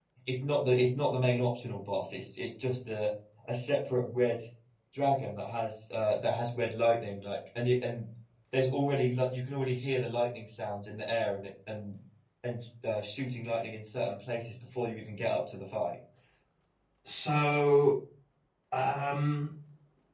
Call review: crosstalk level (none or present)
none